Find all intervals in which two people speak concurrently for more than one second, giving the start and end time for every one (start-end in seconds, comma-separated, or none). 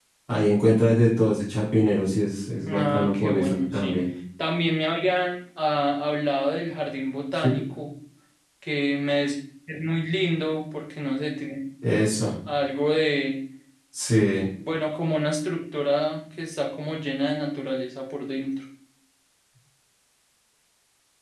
2.6-4.0